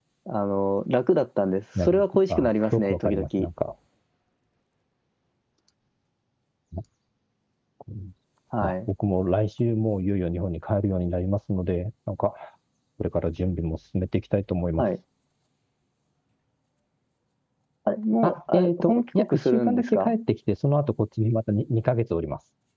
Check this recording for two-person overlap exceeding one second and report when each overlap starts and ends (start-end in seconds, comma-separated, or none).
1.8-3.2, 18.2-20.2